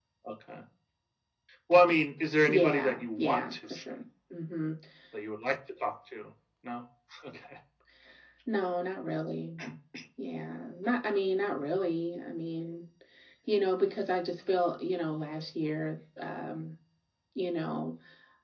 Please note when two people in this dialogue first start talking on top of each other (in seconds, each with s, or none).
2.5 s